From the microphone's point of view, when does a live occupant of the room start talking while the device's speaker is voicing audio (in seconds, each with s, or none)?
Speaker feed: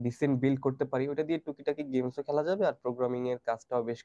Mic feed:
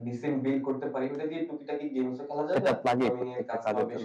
2.5 s